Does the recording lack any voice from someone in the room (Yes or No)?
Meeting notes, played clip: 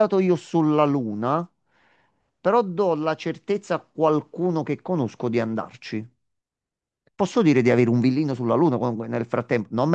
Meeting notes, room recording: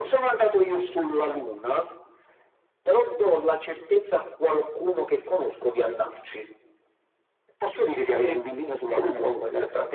No